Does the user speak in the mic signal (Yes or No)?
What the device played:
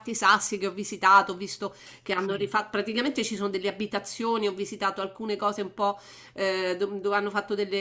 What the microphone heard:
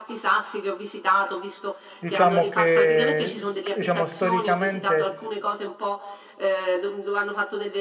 Yes